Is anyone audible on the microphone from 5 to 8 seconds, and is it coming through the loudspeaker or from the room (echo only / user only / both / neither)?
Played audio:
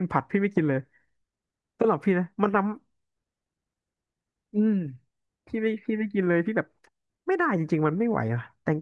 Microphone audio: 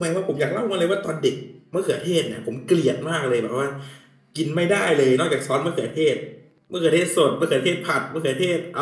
user only